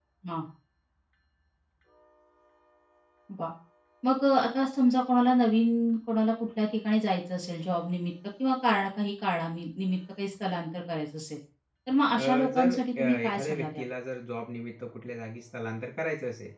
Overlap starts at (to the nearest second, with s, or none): 12 s